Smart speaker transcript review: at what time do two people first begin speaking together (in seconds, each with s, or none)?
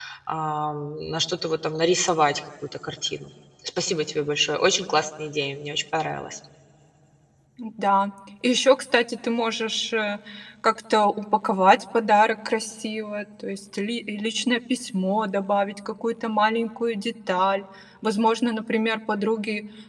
none